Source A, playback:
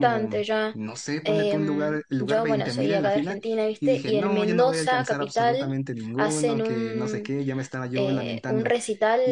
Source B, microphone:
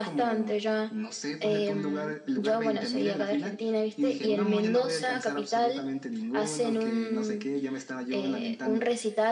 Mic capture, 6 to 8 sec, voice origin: echo only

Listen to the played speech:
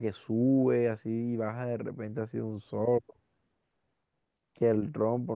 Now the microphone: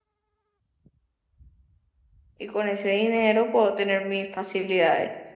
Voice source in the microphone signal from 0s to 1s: neither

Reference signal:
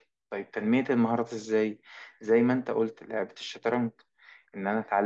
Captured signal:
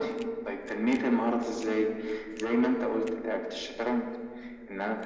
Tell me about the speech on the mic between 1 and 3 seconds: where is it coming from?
echo only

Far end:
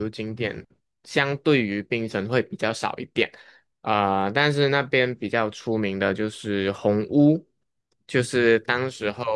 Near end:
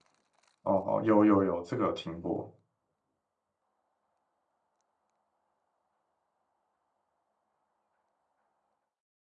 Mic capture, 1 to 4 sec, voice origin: user only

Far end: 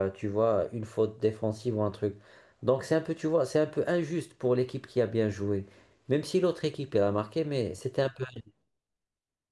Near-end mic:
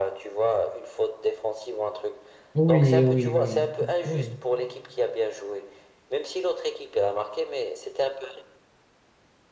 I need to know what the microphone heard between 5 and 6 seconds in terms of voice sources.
echo only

